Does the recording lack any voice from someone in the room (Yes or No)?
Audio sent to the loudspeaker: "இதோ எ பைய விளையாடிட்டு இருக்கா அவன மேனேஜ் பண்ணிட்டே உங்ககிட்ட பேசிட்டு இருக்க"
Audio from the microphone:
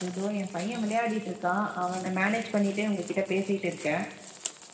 Yes